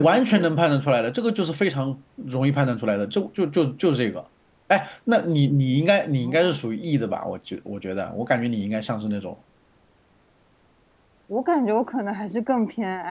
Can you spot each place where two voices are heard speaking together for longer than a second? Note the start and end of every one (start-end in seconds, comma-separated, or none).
none